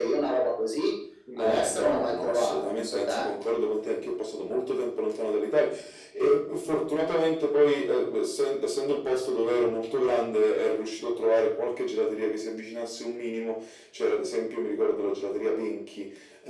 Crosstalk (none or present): present